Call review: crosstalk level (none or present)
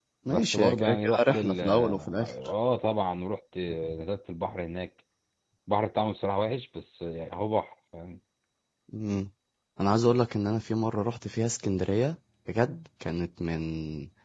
present